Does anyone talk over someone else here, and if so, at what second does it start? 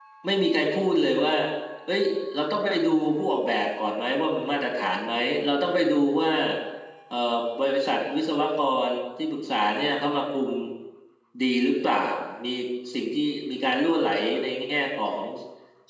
none

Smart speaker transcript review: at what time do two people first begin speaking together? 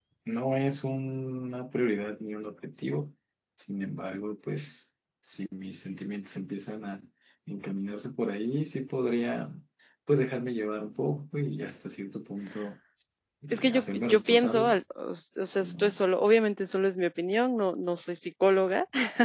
14 s

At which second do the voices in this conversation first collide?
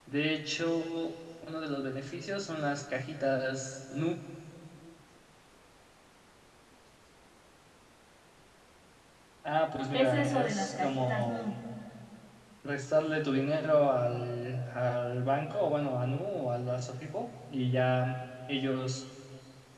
10 s

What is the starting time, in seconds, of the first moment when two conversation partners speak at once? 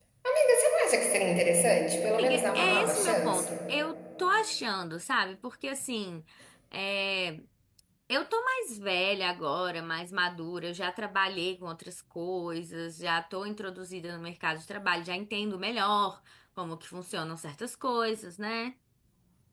2 s

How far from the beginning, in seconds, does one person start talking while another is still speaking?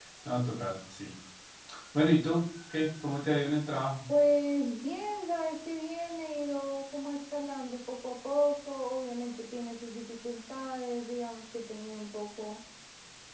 none

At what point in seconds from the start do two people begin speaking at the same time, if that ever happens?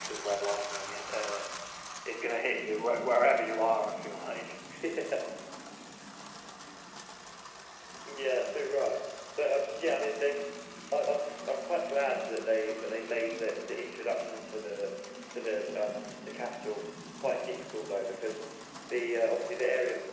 none

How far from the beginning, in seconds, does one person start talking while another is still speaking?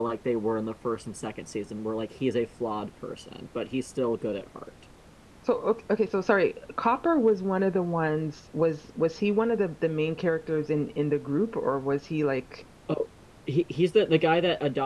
none

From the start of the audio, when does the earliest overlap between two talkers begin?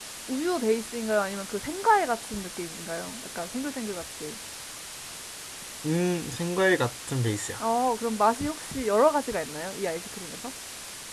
none

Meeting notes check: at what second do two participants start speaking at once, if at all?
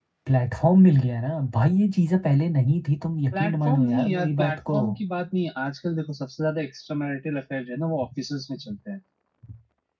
3 s

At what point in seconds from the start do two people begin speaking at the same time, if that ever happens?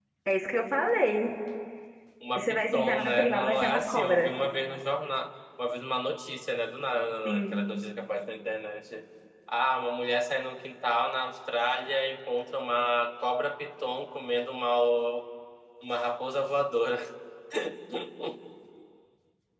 2 s

